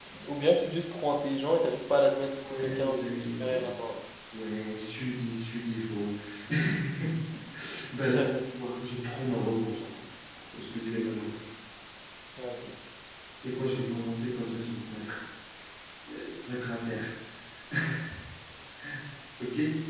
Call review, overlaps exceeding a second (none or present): present